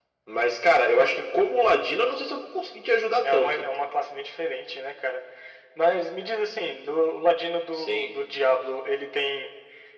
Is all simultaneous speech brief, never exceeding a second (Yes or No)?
Yes